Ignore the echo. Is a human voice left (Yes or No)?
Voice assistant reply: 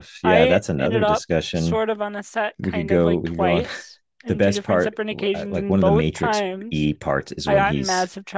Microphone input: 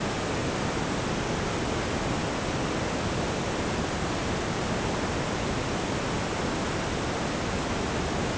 No